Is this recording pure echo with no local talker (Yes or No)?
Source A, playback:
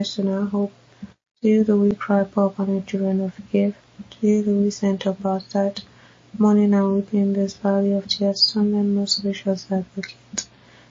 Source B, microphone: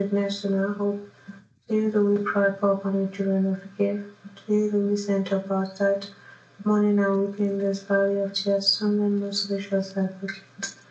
Yes